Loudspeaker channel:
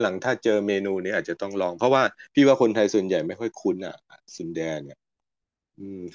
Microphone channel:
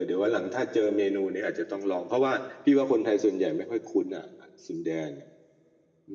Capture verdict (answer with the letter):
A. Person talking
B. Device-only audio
B